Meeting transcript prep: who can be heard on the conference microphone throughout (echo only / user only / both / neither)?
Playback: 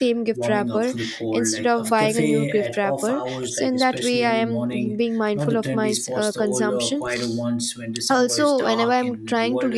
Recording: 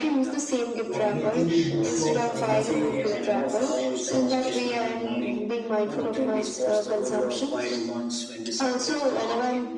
both